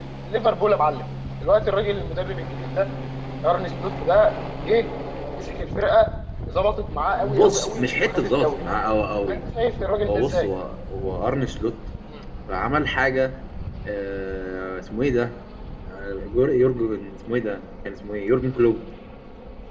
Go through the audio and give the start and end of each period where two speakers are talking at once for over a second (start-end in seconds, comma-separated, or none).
7.2-8.6